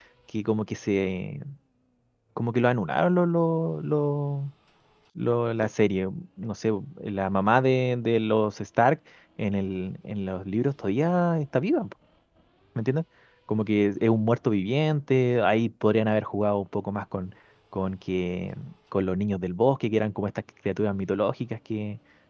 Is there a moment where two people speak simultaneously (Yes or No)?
No